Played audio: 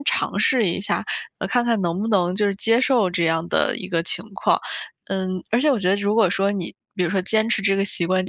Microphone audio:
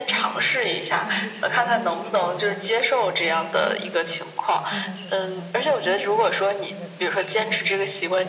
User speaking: Yes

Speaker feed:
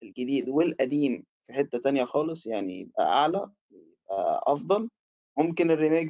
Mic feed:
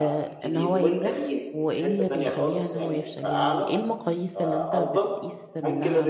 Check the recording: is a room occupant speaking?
Yes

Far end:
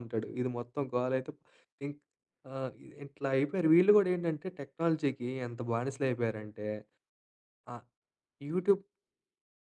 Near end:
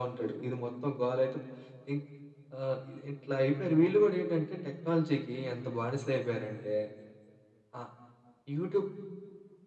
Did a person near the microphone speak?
No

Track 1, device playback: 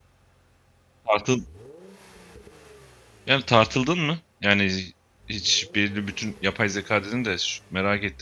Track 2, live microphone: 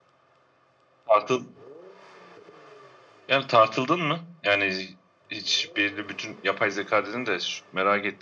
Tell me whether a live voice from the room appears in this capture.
No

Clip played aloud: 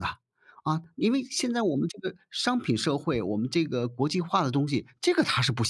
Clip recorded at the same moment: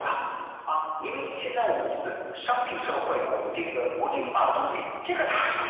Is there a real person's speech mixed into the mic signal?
Yes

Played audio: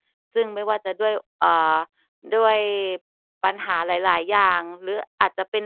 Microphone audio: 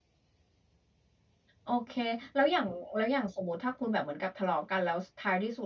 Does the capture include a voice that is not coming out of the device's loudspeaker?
Yes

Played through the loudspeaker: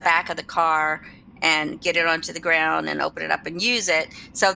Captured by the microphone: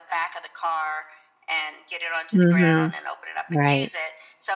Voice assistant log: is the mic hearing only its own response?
No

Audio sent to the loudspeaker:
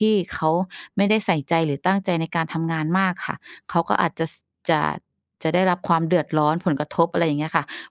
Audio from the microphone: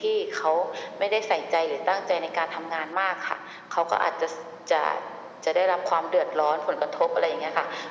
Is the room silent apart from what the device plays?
Yes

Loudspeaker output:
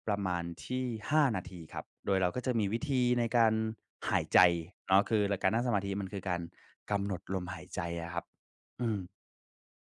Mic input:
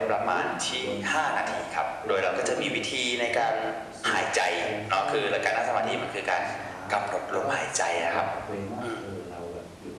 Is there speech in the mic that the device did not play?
Yes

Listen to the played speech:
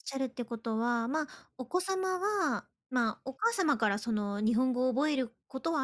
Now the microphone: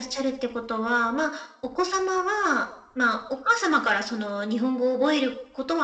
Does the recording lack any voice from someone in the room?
Yes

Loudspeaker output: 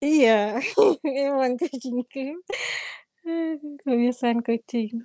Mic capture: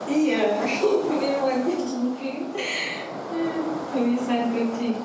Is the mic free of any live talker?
Yes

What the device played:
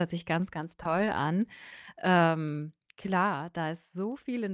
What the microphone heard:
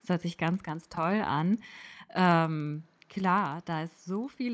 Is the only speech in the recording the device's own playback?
Yes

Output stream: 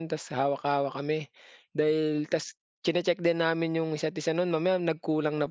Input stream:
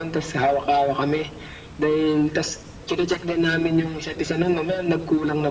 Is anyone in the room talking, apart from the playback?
No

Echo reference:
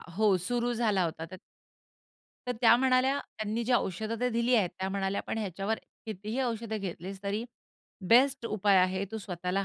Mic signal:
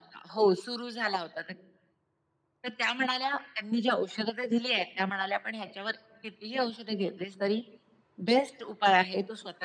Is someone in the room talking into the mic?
No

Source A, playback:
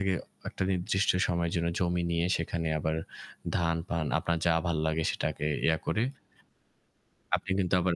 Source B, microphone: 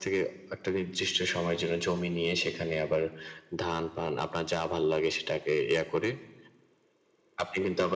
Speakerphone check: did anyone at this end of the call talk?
No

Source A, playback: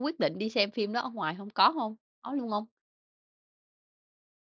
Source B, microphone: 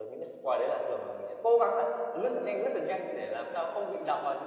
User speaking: Yes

